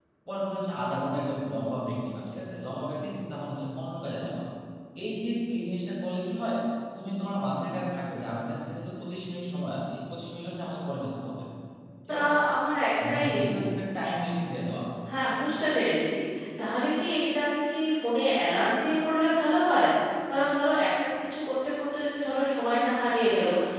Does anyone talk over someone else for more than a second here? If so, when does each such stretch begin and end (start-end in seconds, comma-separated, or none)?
none